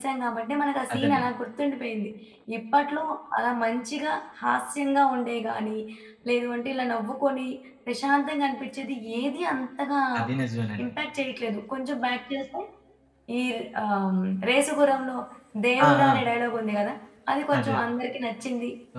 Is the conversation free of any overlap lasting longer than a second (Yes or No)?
Yes